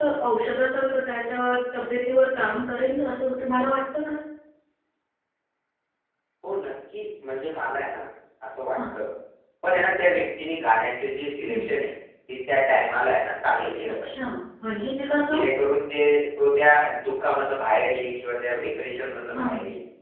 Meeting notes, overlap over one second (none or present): none